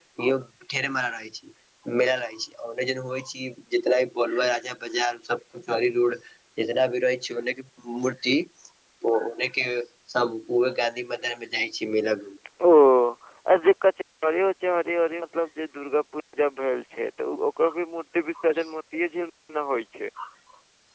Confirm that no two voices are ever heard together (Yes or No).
Yes